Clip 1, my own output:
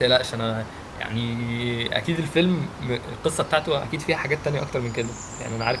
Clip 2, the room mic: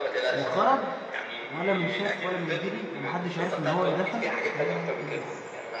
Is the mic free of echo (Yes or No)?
No